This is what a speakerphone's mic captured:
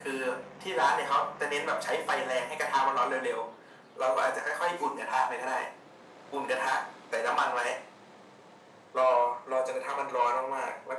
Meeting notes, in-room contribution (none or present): none